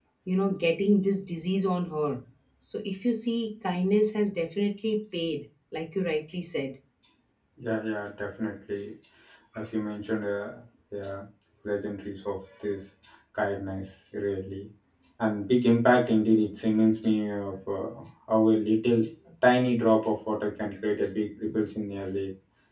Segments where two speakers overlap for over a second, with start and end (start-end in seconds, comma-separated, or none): none